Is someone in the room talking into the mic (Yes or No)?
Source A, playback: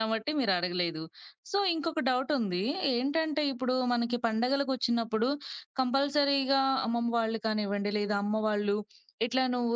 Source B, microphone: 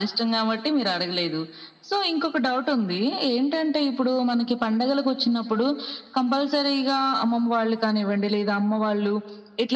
No